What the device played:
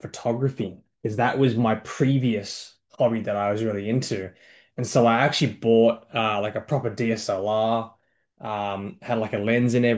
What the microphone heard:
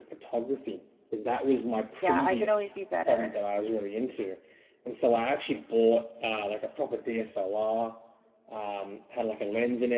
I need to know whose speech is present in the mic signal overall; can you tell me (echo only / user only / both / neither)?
both